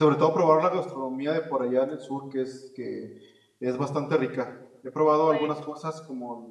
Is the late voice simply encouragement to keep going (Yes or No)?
Yes